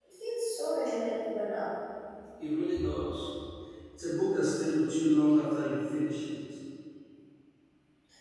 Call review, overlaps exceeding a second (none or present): none